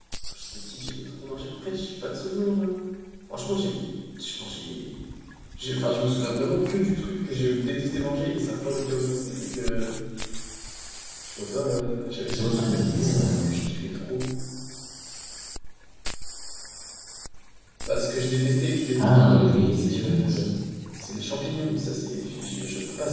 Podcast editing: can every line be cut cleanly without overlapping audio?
No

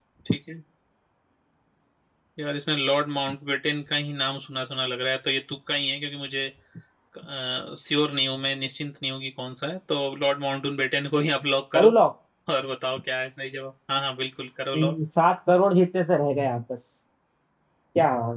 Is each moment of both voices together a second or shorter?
Yes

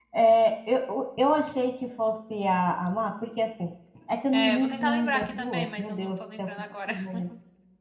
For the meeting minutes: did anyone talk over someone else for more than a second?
Yes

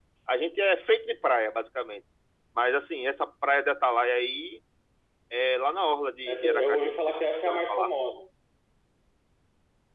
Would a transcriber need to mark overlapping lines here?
Yes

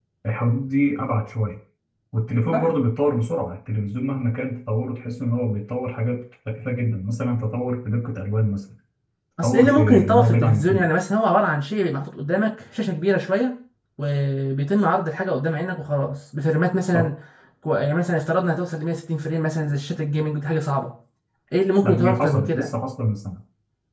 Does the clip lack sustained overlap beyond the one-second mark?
No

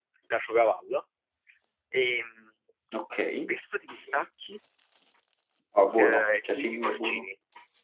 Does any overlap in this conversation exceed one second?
Yes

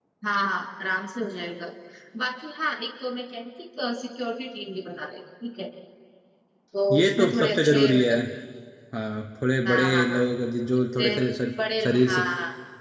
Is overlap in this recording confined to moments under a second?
No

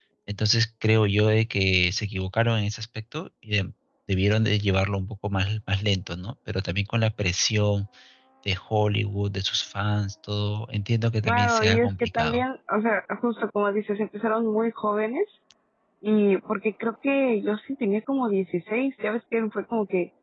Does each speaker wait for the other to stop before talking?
No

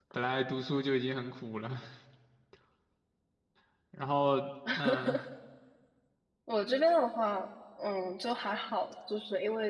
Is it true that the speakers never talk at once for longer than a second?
Yes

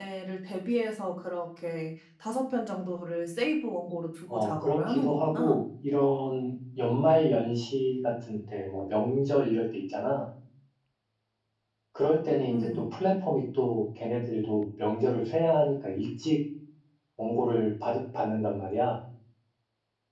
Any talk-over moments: Yes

